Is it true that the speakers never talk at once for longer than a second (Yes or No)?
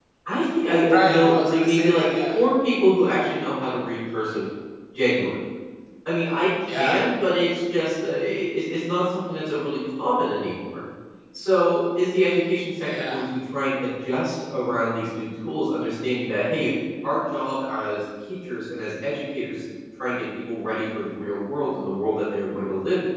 No